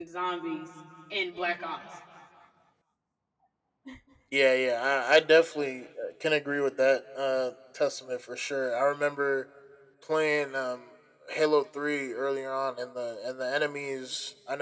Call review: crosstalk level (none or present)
none